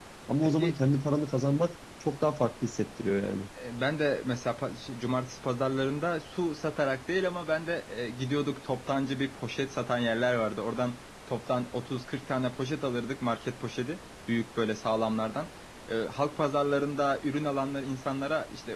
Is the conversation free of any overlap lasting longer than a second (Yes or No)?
Yes